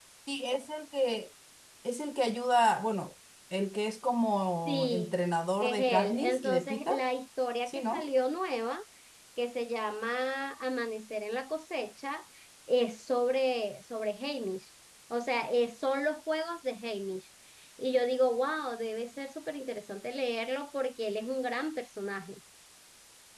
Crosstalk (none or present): present